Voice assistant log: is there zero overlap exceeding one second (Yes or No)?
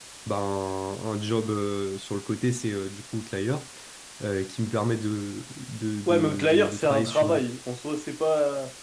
No